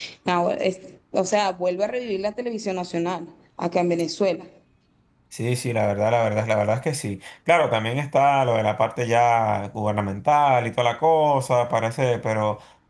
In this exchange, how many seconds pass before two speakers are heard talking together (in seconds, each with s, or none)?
none